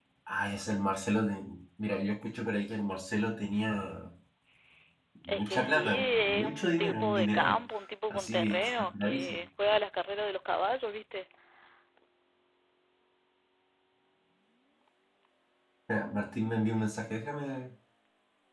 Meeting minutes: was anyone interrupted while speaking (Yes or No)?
Yes